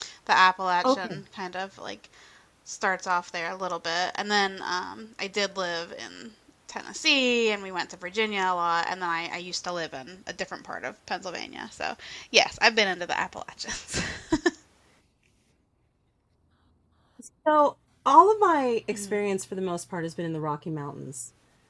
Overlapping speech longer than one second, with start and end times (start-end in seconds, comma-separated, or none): none